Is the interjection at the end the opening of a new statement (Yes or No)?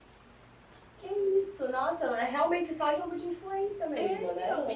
Yes